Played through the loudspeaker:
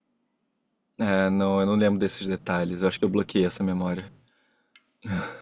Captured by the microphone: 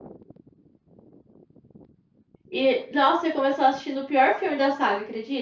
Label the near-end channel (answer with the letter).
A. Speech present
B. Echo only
A